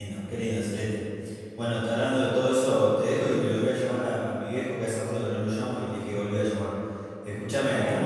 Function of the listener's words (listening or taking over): listening